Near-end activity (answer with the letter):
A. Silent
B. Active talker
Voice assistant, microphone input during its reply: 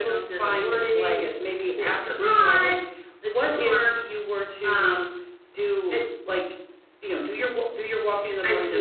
A